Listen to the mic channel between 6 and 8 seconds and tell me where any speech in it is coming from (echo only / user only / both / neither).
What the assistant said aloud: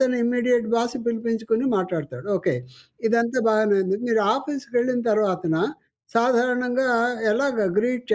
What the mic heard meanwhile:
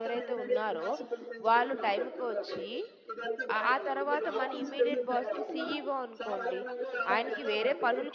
both